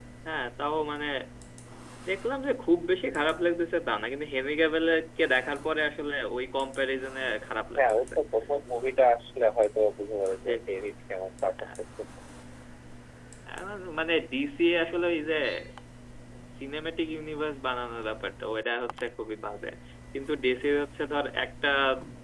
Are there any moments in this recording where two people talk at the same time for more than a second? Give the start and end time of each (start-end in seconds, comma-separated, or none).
none